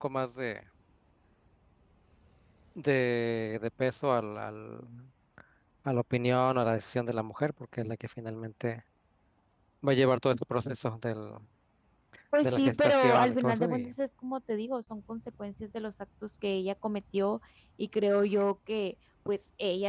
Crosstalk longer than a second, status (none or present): present